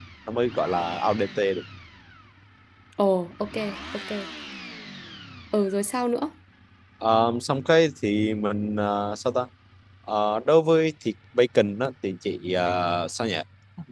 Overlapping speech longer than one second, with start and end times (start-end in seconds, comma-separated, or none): none